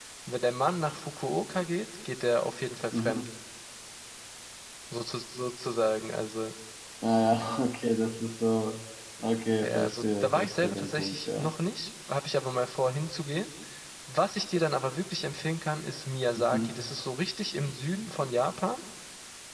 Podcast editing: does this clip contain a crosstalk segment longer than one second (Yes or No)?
Yes